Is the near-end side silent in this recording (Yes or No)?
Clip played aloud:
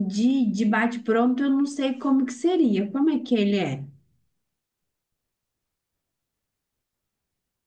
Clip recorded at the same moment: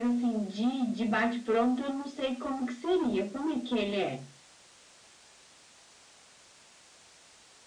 Yes